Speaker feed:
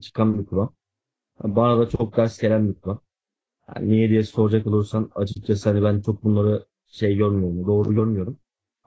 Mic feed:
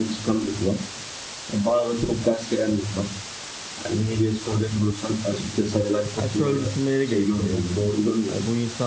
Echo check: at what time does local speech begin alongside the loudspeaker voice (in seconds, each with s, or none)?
6.2 s